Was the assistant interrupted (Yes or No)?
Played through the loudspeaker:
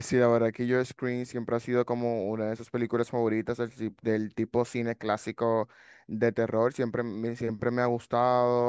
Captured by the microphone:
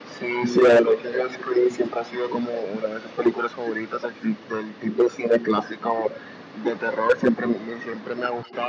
No